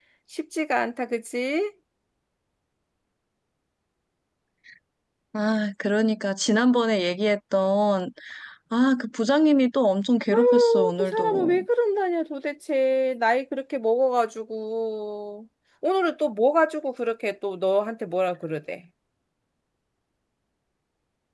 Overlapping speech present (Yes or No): Yes